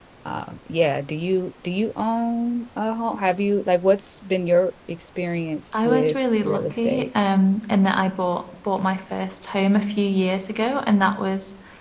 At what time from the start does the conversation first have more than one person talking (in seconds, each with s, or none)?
5.7 s